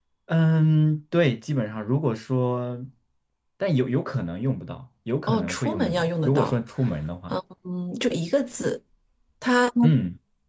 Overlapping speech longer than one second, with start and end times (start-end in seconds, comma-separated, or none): 5.3-6.6